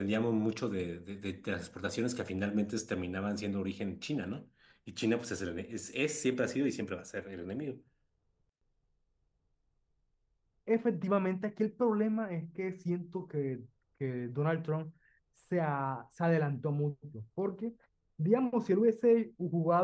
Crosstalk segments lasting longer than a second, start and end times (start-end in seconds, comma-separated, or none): none